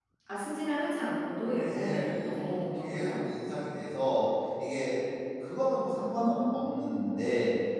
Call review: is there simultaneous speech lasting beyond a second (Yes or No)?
Yes